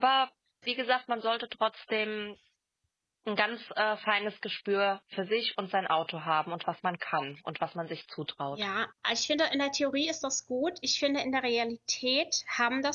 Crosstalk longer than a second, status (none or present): none